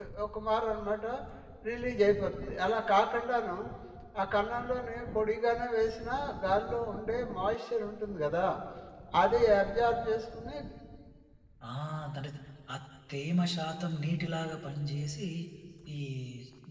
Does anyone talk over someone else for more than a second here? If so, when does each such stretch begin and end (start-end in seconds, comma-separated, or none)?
none